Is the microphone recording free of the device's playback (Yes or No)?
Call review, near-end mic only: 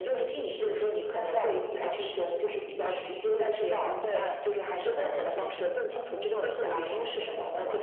No